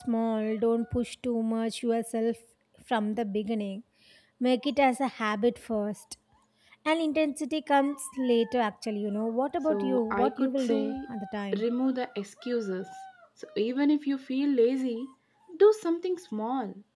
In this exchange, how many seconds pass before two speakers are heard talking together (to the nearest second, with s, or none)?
10 s